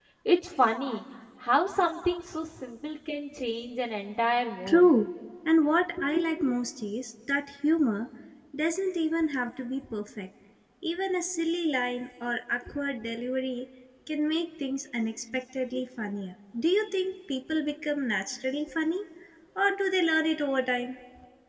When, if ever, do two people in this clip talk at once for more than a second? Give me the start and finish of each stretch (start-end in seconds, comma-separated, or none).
none